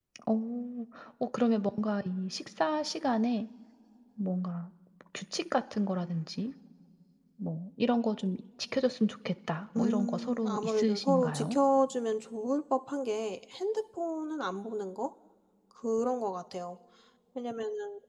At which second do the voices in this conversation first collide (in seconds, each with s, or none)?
9.8 s